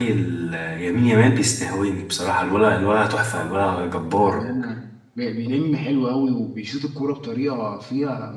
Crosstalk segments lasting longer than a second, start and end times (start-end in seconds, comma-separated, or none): none